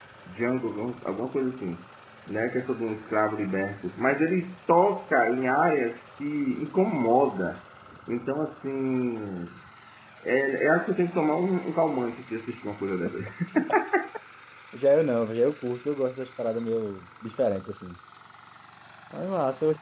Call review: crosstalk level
none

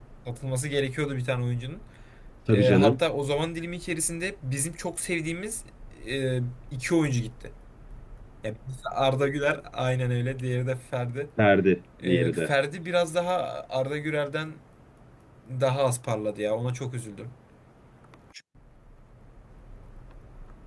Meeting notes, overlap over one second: none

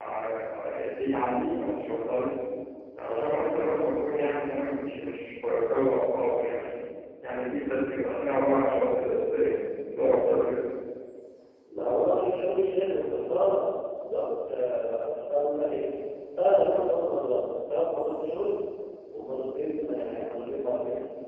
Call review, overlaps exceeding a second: none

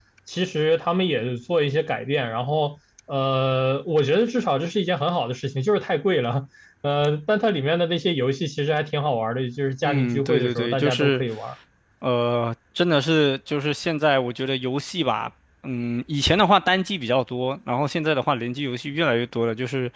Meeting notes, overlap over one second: present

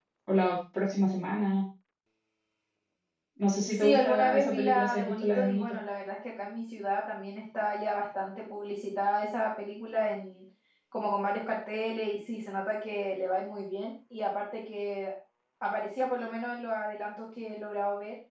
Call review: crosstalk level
present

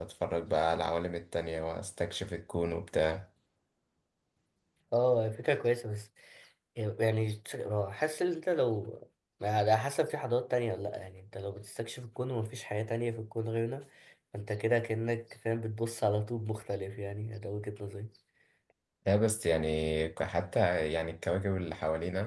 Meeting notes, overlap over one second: none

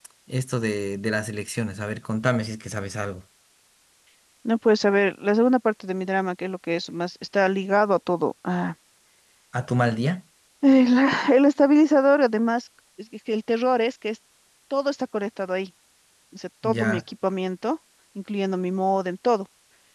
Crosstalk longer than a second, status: none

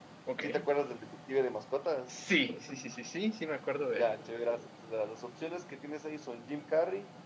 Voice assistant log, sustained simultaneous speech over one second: none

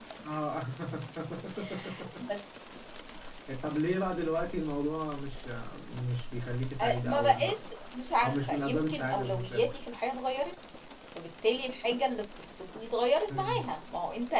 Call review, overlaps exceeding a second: present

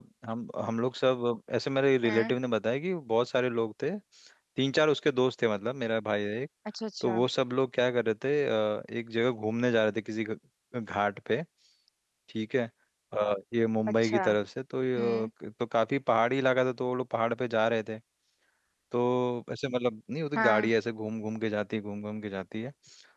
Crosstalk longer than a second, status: none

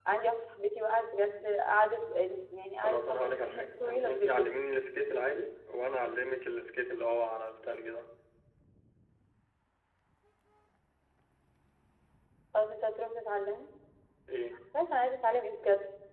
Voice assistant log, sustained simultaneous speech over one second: present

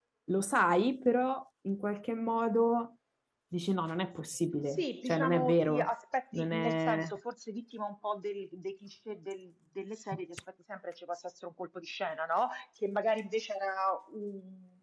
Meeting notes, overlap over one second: present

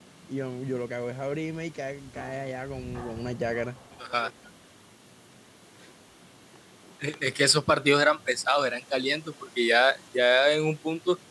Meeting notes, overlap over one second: none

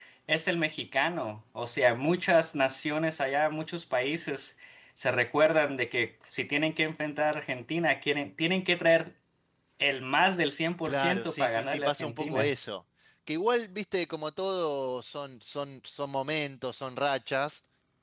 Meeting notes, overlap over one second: present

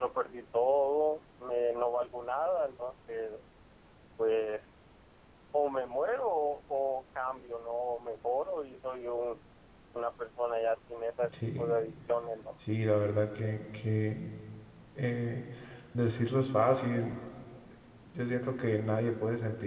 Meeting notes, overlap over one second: none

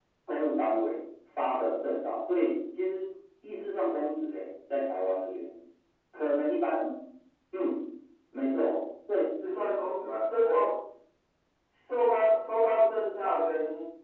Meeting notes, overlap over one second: none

